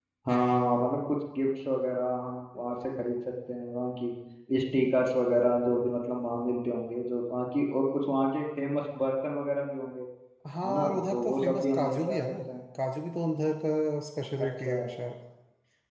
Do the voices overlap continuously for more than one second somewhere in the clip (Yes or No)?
Yes